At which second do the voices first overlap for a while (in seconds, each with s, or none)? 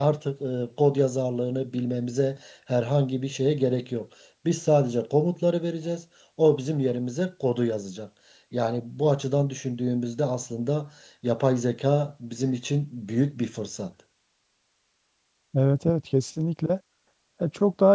none